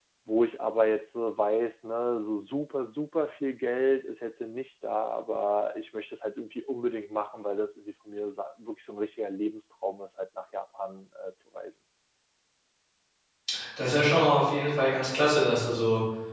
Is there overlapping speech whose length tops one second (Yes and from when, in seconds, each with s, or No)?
No